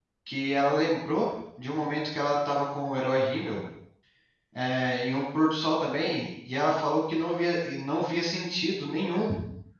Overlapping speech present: No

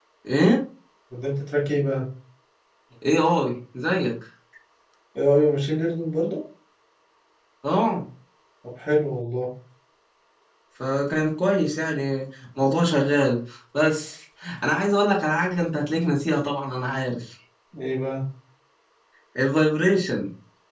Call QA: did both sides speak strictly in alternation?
Yes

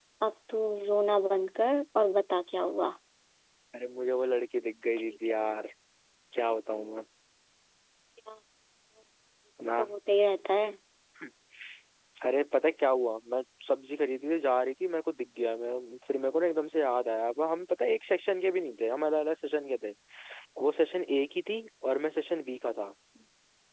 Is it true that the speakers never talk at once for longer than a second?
Yes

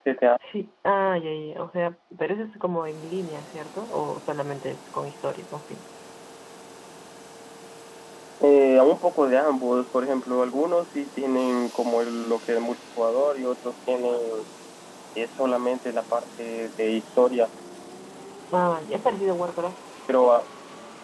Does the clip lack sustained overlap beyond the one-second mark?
Yes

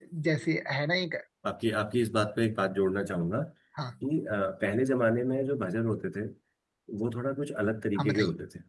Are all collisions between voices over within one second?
Yes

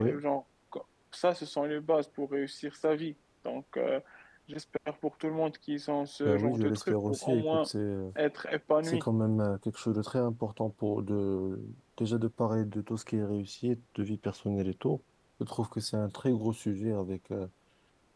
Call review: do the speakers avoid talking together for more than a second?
No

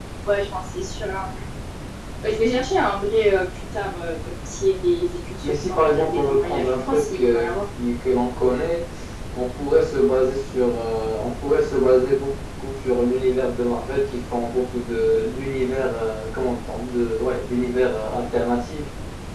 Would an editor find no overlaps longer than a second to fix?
No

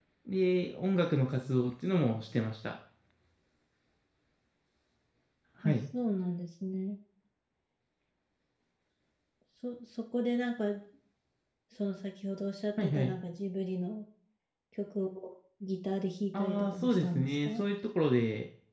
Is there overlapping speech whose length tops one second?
Yes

